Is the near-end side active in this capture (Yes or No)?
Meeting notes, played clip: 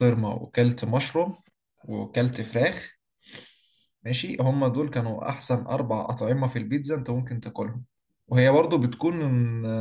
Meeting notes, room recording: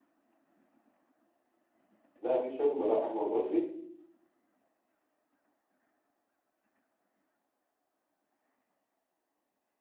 Yes